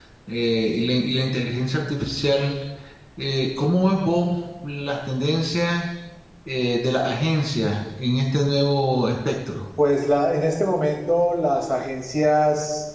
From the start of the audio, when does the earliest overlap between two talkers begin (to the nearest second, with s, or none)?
none